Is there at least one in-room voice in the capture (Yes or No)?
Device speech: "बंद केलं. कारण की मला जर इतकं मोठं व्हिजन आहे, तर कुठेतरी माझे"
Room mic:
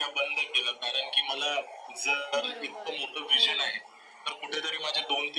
Yes